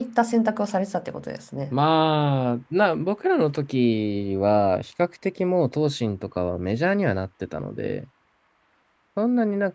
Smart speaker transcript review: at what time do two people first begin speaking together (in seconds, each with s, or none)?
none